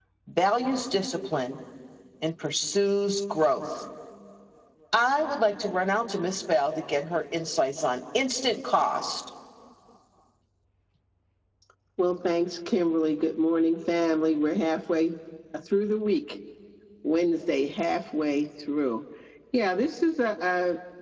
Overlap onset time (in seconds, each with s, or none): none